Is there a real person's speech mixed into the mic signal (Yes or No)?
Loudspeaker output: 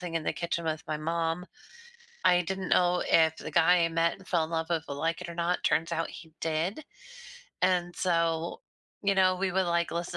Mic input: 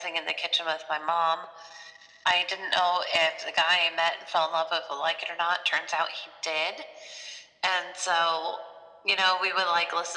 No